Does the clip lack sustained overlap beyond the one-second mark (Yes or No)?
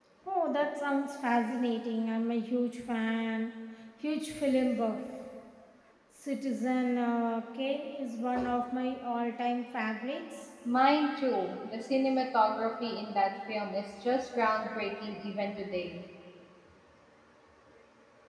Yes